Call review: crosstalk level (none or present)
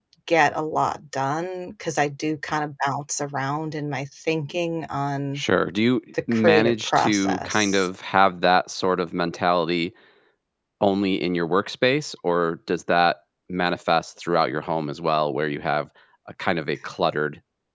present